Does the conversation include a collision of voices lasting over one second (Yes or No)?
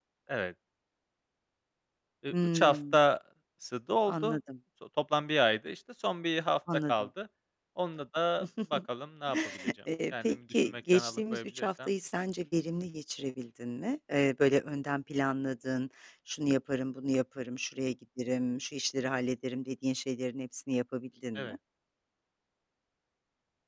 Yes